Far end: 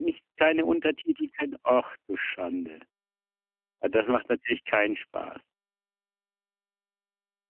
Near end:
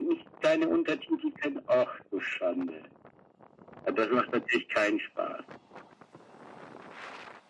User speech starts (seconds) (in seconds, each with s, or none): none